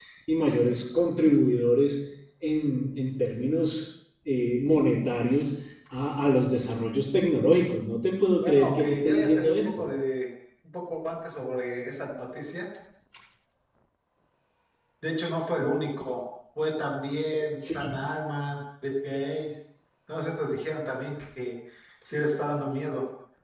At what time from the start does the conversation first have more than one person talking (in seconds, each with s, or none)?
8.4 s